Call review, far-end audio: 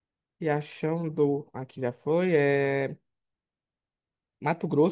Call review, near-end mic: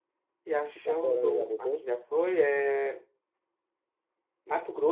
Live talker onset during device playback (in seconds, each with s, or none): 0.7 s